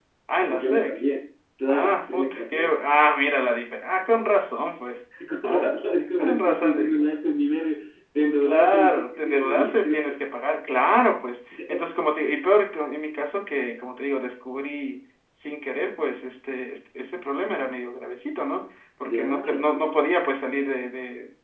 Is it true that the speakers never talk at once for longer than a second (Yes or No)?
No